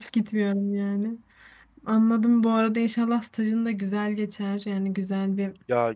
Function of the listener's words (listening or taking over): taking over